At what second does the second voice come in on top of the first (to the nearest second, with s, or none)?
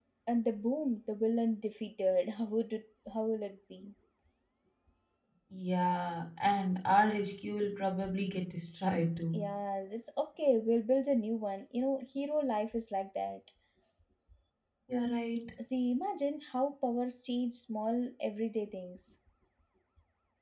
none